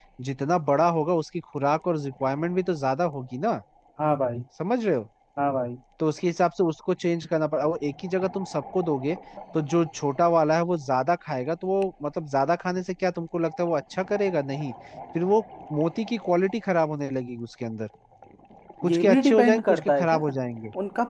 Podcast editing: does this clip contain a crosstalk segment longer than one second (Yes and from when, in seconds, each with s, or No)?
Yes, from 18.9 s